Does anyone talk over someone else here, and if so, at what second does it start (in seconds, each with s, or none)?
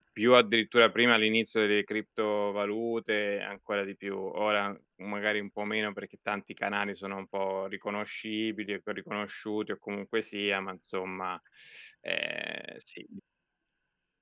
none